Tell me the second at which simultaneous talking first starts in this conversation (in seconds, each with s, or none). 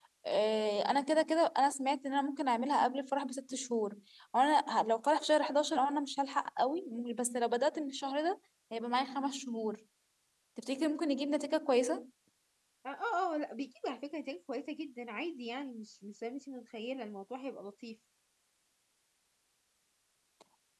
none